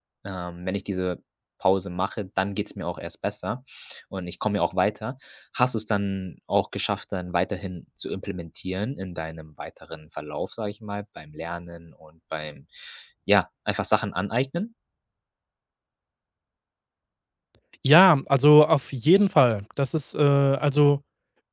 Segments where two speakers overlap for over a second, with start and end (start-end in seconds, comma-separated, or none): none